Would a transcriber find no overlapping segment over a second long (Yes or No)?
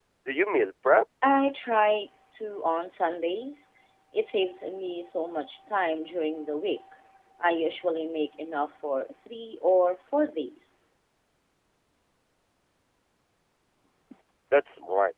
Yes